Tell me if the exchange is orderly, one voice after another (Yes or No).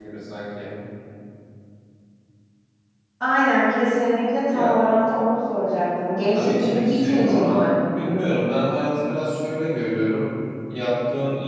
No